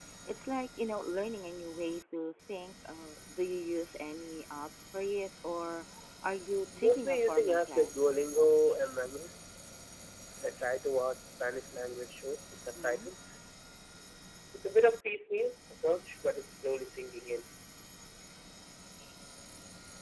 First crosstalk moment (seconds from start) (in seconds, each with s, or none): 6.8 s